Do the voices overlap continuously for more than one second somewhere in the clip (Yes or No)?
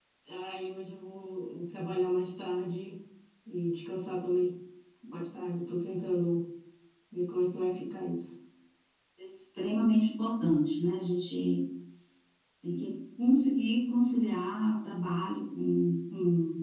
No